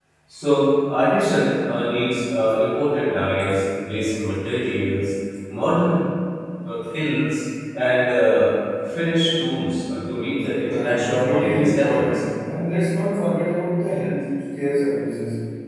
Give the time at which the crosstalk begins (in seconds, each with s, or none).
10.7 s